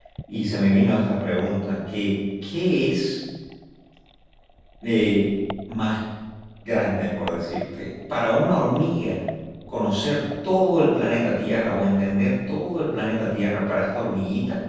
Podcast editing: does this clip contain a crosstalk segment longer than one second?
No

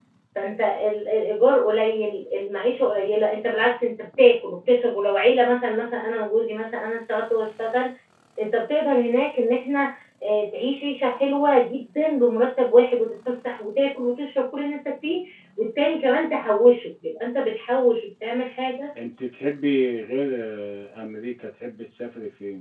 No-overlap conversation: Yes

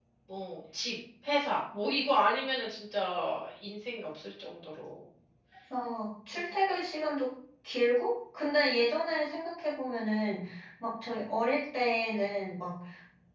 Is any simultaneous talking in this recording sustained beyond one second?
No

